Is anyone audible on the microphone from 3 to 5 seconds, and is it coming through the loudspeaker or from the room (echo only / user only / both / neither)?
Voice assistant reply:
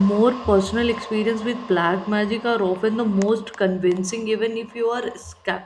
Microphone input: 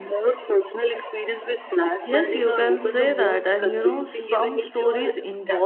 both